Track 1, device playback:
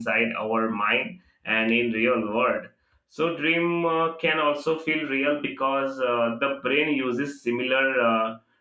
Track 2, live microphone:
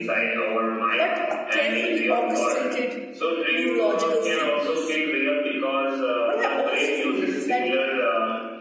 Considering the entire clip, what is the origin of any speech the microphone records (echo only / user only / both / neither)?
both